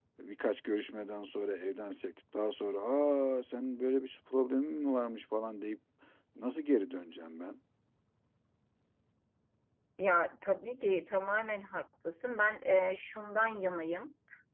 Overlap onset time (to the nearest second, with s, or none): none